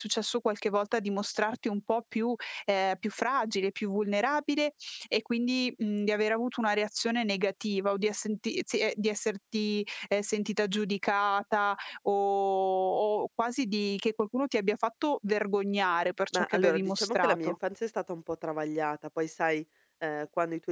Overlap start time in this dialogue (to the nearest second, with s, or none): 16 s